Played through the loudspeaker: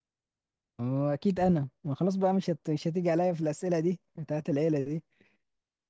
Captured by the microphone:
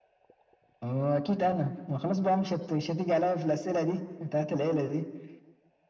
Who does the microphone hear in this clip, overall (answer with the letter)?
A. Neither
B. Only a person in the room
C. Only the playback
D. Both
C